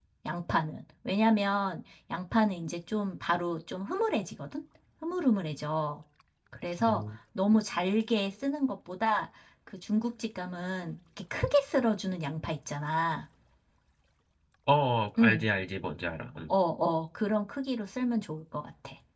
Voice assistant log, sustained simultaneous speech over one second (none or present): none